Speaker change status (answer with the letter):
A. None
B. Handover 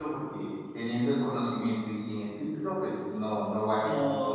B